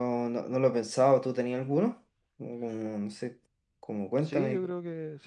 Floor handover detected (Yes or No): Yes